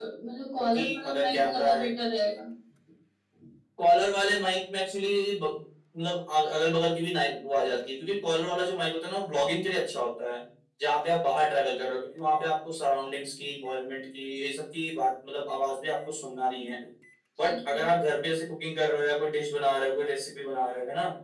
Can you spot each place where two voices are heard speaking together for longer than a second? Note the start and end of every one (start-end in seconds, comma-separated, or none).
0.6-1.9